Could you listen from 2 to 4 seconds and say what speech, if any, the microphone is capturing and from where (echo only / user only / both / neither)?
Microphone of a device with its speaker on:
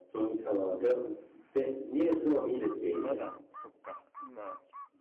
both